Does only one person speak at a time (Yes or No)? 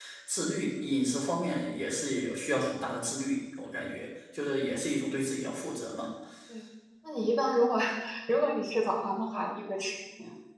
Yes